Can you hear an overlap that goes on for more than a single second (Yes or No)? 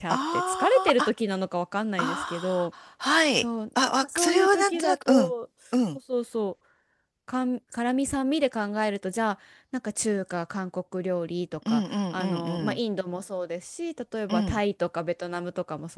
Yes